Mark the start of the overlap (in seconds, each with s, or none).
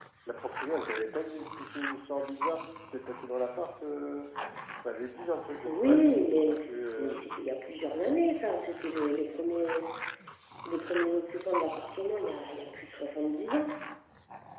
5.7 s